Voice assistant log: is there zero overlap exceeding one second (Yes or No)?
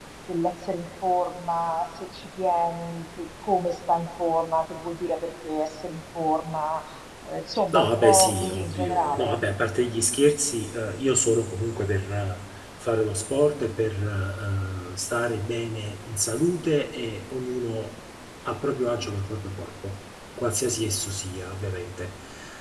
No